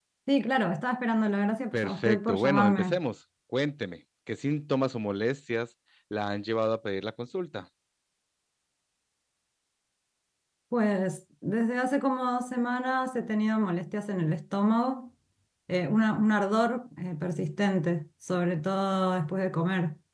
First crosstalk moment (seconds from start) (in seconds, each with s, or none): 1.7 s